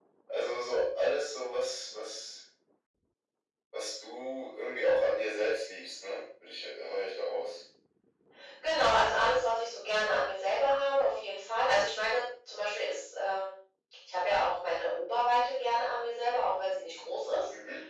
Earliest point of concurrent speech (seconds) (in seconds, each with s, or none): none